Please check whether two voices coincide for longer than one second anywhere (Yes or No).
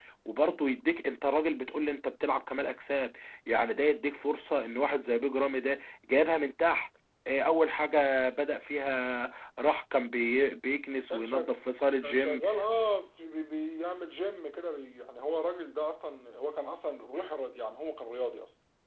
No